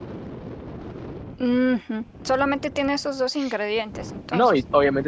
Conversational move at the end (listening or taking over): taking over